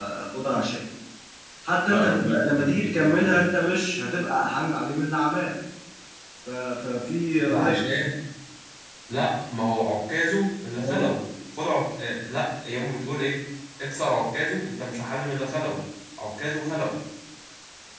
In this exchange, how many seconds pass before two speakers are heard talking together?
1.9 s

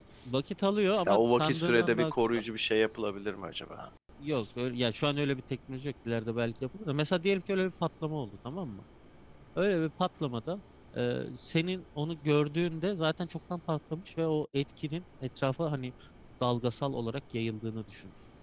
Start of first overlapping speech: 1.0 s

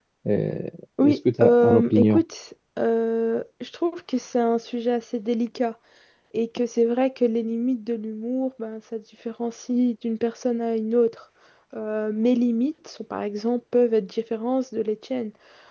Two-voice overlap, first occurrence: 1.0 s

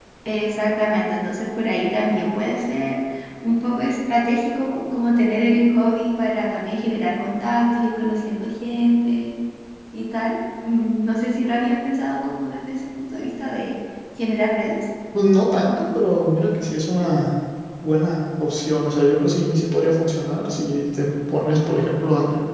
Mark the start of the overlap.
none

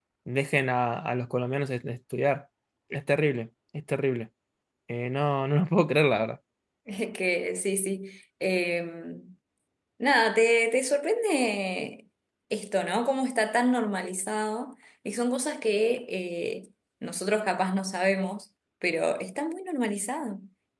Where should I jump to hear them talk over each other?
none

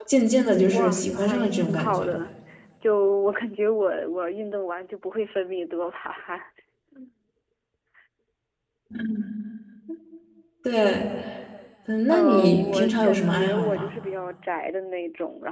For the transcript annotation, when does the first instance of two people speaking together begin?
0.7 s

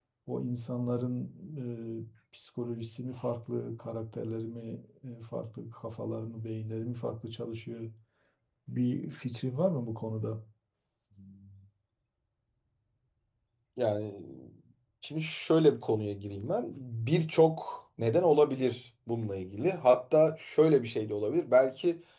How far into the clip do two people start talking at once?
none

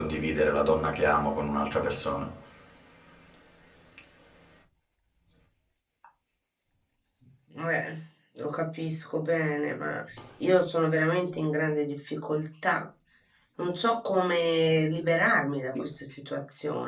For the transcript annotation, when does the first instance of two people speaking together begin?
none

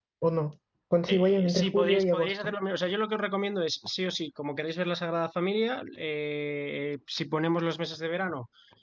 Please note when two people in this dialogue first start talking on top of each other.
1.1 s

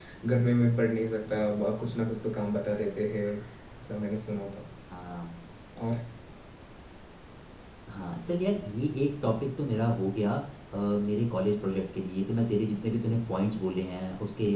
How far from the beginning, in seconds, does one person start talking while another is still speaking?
none

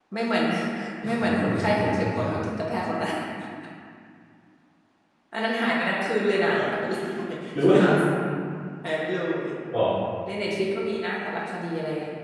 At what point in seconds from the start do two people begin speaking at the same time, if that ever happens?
1.0 s

